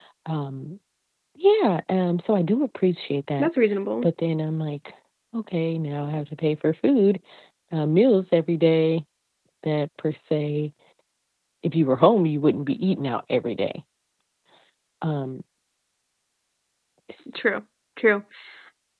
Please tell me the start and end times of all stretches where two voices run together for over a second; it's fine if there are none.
none

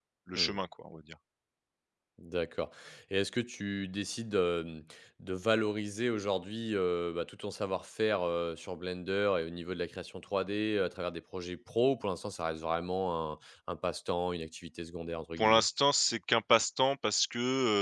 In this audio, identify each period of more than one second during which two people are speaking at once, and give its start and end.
none

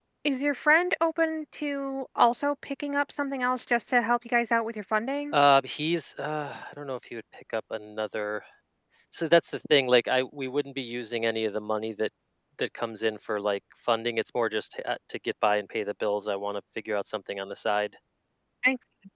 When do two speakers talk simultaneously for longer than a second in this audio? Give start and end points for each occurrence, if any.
none

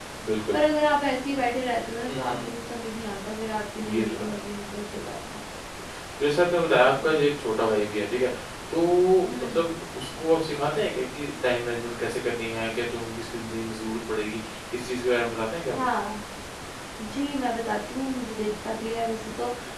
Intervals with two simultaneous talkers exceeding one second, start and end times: none

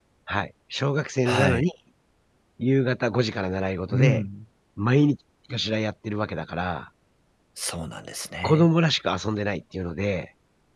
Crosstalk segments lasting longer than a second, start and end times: none

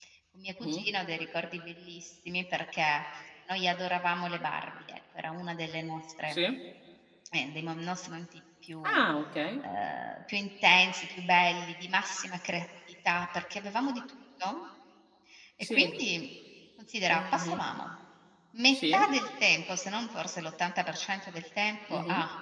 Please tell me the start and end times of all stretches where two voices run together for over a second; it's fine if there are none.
none

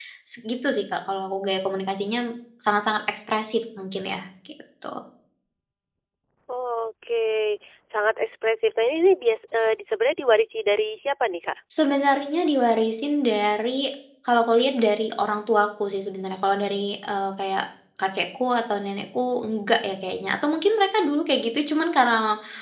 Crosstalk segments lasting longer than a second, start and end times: none

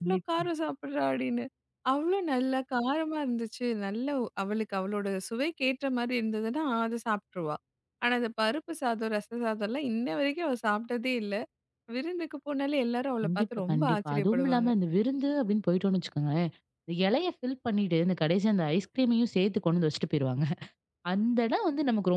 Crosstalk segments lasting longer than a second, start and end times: 13.2-14.7

